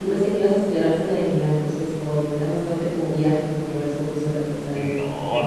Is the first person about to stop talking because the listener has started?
Yes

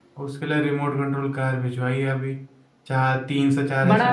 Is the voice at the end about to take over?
Yes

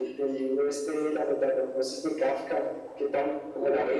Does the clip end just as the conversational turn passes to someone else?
Yes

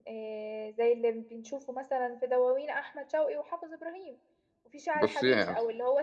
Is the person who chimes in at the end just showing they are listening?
Yes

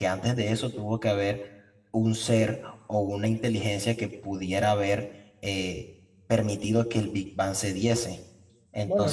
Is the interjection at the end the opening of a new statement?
Yes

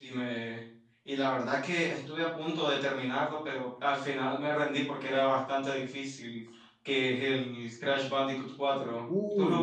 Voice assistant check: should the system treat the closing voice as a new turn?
Yes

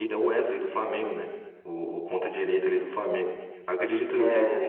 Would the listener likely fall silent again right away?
Yes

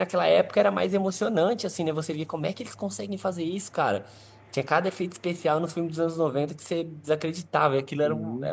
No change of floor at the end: Yes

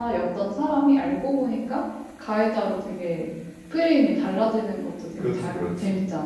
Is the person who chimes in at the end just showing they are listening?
No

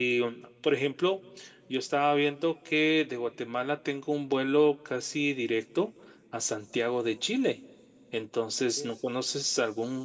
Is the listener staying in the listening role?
Yes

